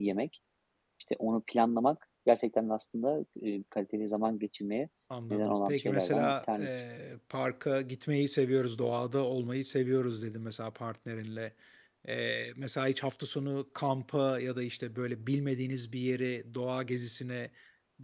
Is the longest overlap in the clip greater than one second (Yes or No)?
Yes